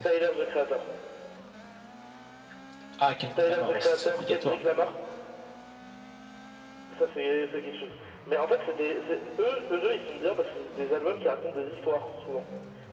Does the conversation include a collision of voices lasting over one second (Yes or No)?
Yes